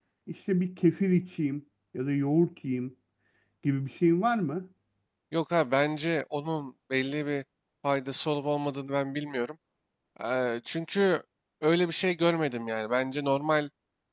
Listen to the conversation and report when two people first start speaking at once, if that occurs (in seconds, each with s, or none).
none